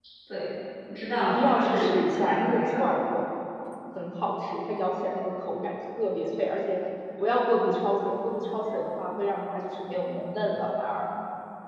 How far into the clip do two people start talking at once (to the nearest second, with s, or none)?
1 s